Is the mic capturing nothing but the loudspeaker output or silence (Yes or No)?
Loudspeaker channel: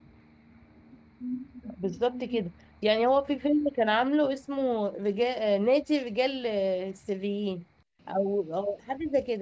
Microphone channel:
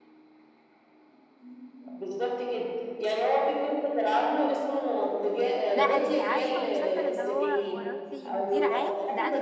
No